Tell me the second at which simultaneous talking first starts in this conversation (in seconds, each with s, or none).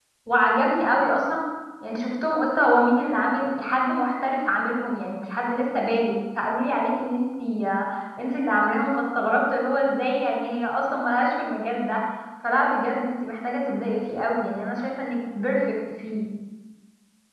none